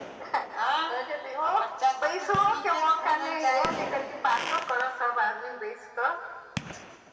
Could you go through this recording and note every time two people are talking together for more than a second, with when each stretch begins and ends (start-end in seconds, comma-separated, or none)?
2.0-3.8